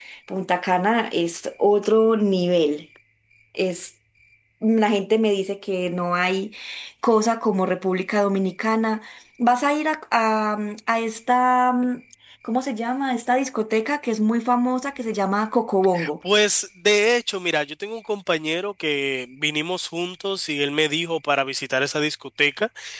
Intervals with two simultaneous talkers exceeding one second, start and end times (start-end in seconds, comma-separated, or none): none